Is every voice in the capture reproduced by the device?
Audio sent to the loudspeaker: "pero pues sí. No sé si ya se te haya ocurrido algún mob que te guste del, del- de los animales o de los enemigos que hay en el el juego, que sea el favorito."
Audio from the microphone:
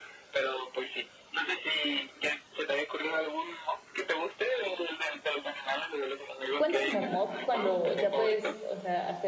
No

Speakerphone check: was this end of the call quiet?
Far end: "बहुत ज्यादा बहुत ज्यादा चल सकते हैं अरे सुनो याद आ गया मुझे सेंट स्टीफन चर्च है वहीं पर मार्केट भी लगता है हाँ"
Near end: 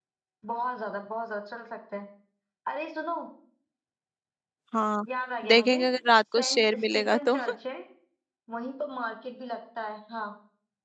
No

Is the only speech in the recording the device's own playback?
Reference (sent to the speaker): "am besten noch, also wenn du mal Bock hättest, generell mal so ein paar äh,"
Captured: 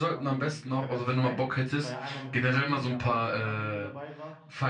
No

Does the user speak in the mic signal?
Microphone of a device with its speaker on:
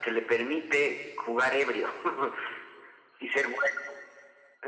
No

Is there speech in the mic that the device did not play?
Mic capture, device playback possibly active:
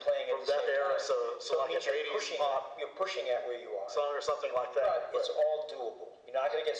No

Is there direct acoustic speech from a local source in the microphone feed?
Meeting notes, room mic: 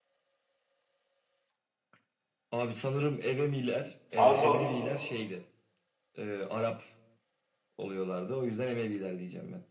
Yes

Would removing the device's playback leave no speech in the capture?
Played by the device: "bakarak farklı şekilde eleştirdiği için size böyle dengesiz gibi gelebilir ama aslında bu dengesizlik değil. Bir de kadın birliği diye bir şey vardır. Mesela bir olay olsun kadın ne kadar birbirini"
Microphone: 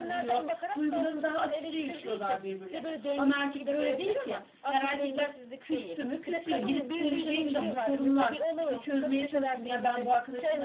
No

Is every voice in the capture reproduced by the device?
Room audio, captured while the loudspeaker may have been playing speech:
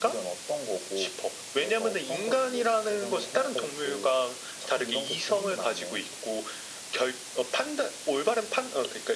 Yes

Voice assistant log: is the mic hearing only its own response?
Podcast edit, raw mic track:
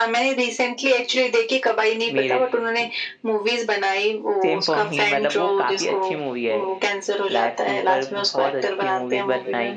No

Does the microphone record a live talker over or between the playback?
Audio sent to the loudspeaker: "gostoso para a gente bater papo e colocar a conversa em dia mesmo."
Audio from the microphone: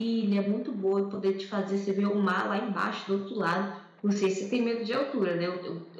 Yes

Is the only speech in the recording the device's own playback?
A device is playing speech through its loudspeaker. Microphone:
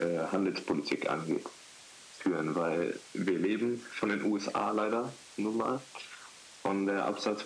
Yes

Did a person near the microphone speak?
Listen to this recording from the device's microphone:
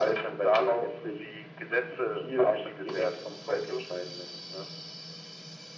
No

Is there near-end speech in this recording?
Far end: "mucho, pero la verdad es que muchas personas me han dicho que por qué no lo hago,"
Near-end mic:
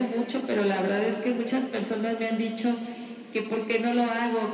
No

